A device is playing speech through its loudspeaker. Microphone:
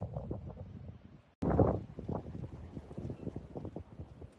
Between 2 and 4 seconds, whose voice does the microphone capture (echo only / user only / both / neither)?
neither